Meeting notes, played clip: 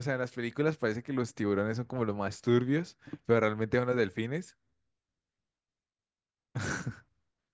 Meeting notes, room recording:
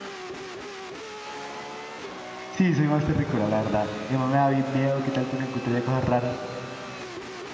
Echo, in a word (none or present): none